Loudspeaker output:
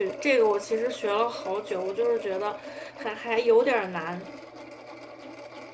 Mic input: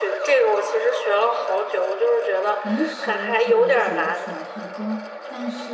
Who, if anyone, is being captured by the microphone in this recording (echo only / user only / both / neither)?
both